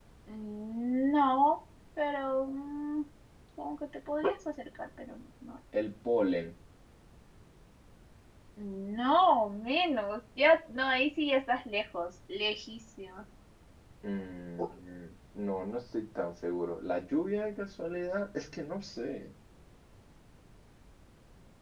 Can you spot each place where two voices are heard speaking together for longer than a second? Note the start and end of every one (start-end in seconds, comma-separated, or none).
none